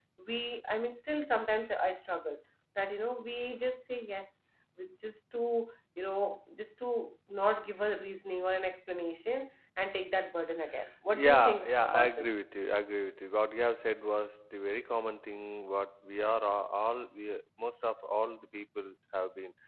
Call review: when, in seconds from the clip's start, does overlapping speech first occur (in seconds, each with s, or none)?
11.1 s